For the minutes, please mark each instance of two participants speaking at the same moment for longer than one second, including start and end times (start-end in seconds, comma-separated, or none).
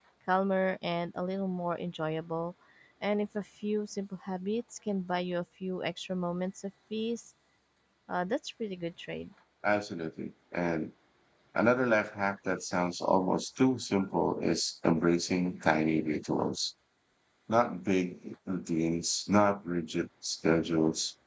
none